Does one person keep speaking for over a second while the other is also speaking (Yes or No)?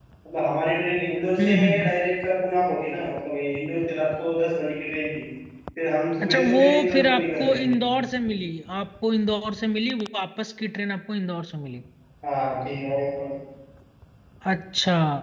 Yes